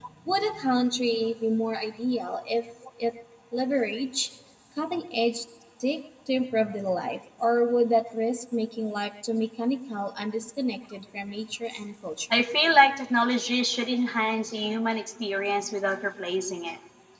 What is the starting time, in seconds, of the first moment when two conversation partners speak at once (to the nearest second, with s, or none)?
none